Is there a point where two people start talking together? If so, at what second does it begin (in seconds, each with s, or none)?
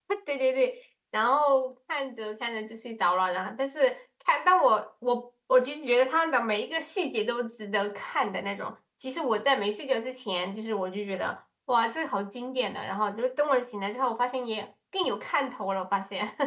none